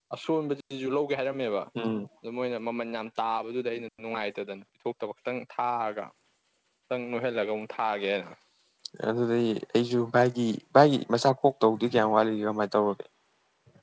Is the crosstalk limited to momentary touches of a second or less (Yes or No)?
Yes